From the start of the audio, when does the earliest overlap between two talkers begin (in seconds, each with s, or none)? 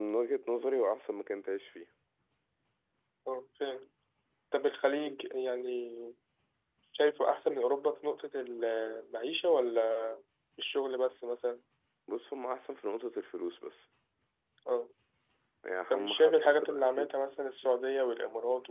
15.9 s